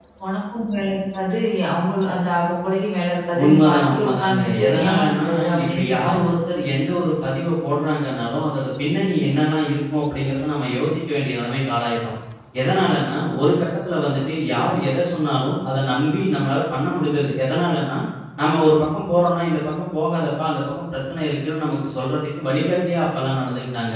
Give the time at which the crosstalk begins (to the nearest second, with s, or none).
3 s